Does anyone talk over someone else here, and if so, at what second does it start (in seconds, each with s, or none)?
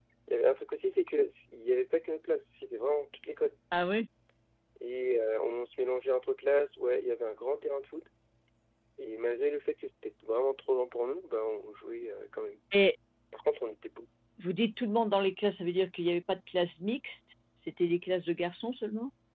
none